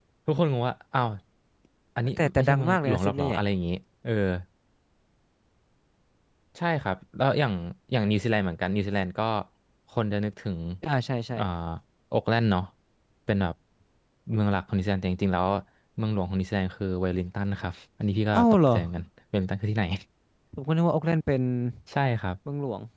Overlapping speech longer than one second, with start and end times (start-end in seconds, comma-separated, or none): 2.2-3.4